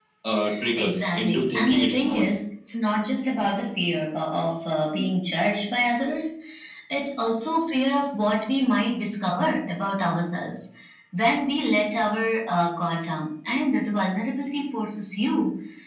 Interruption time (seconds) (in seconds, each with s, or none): 0.8 s